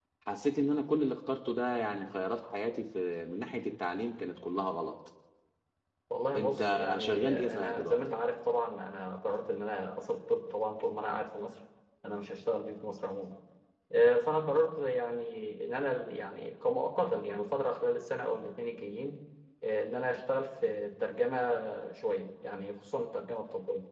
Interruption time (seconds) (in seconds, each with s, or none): 6.3 s